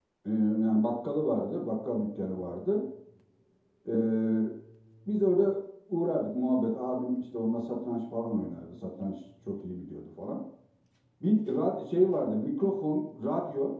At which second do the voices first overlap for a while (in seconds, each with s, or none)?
none